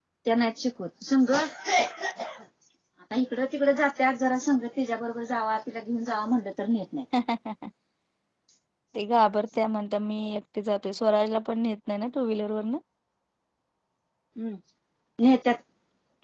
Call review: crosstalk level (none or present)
none